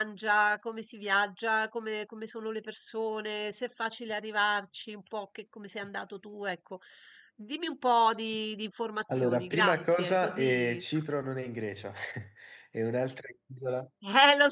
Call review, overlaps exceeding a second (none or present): present